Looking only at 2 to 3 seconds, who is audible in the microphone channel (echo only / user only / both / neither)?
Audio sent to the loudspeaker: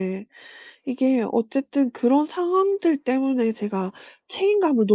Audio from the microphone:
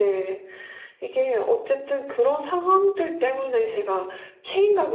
echo only